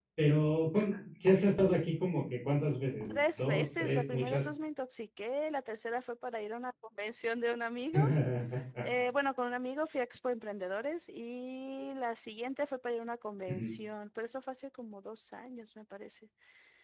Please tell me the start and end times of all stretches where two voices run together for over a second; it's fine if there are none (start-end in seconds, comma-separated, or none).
3.1-4.4